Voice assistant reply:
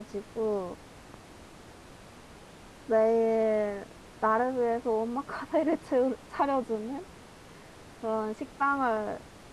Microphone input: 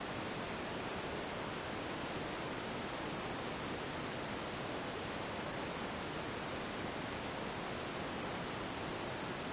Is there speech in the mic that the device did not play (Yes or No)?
No